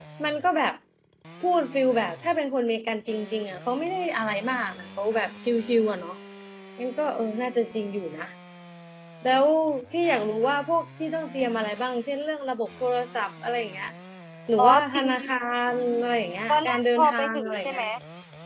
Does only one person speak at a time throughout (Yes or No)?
No